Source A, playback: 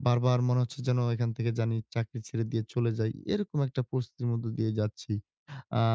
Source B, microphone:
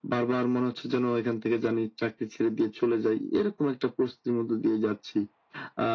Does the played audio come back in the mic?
Yes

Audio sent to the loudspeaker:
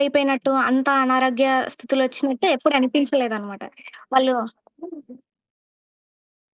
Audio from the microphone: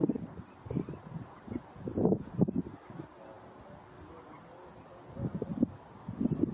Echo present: No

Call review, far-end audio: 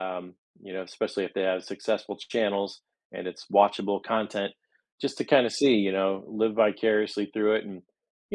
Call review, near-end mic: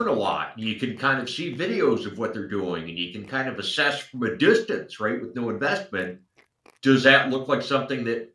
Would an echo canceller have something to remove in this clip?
No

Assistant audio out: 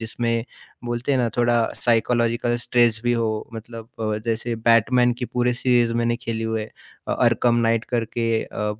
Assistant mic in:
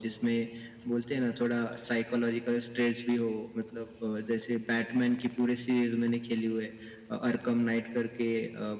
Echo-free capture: No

